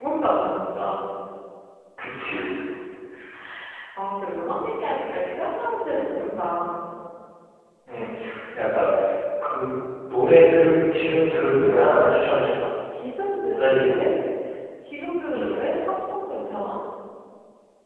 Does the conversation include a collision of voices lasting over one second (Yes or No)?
No